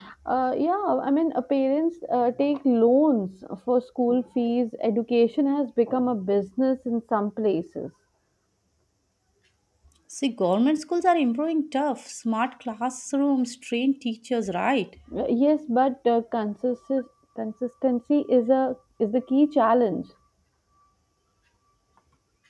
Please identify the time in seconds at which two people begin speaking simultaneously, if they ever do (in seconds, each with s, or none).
none